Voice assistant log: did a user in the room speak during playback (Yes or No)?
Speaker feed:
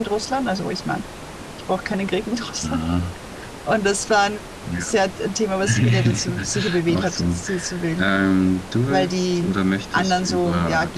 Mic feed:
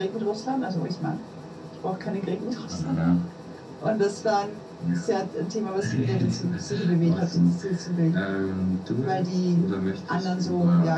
Yes